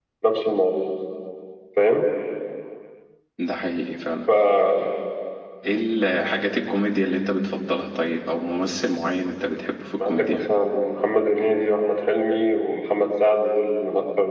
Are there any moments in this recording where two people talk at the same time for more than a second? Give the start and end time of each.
none

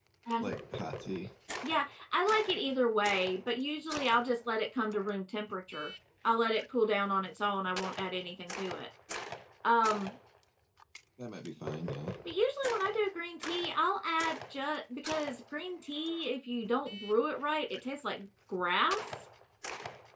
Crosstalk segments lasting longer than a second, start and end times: none

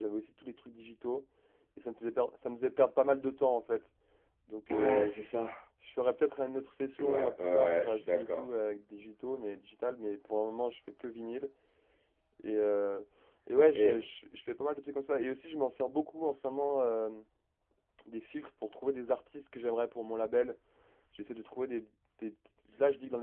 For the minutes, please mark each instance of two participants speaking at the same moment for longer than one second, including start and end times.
7.0-8.5

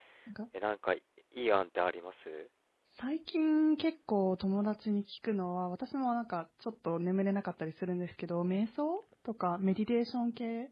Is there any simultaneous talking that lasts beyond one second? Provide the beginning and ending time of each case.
none

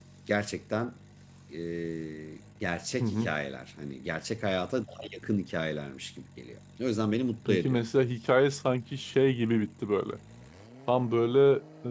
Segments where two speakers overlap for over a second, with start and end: none

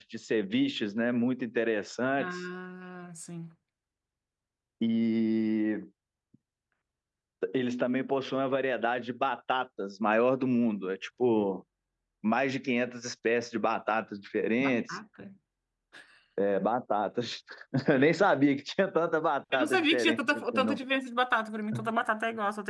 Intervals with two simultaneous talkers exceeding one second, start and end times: 19.5-20.8

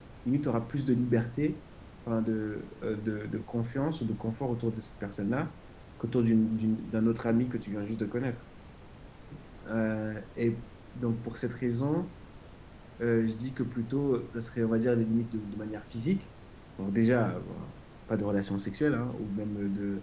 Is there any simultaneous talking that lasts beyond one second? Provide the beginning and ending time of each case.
none

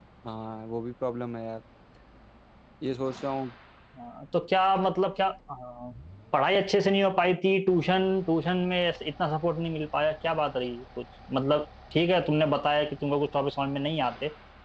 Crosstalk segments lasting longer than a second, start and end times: none

